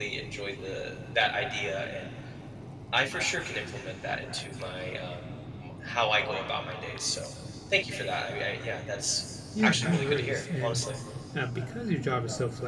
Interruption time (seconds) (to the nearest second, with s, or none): 10 s